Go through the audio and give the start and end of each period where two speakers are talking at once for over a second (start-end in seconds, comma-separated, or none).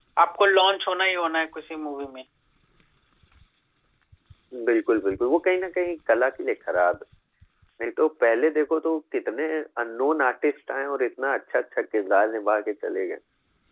none